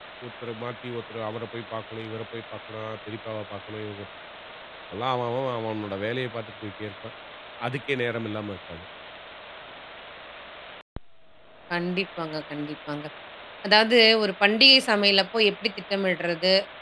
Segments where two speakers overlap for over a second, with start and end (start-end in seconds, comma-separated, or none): none